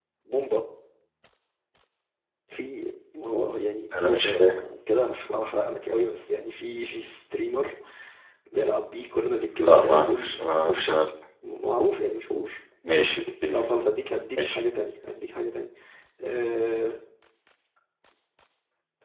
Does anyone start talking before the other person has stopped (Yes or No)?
Yes